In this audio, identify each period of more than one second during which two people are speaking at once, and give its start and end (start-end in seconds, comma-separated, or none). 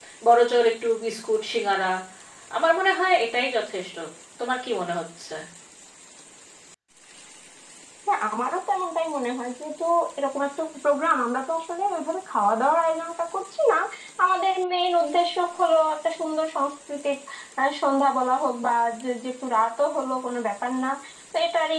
none